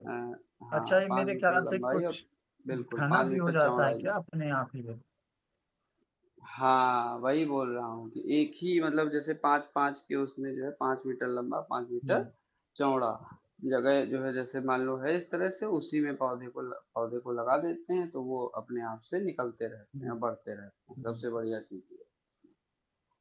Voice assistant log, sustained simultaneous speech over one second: present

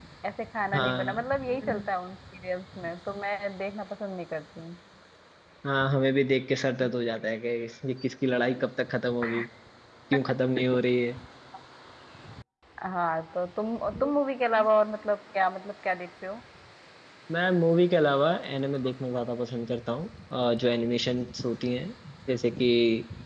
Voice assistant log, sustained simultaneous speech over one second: none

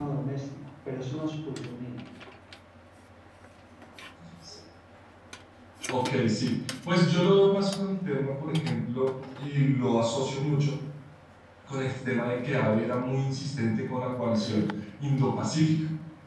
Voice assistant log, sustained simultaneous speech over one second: none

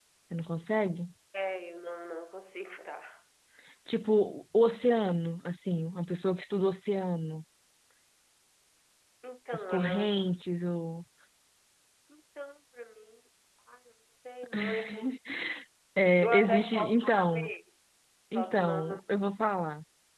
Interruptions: present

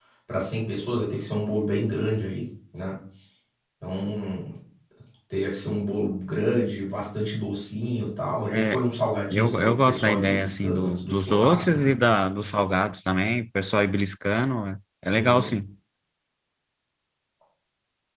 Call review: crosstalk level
present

